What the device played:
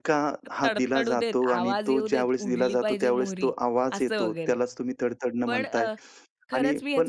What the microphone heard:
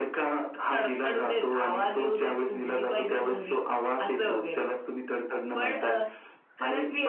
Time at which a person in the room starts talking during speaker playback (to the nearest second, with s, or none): none